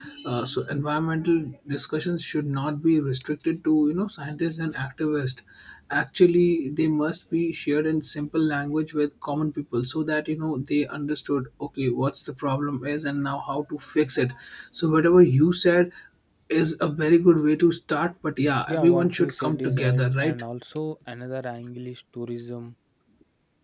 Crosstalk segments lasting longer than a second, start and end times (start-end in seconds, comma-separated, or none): 18.7-20.4